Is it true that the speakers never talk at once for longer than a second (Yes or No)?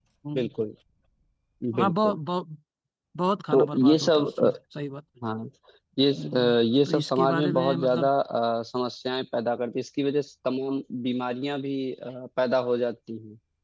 No